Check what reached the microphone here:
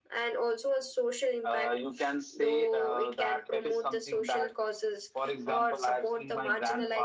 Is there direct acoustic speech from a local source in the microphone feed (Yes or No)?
No